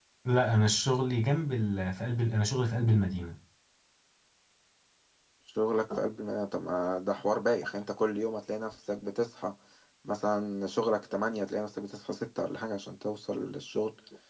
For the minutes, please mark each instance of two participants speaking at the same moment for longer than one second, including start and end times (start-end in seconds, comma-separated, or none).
none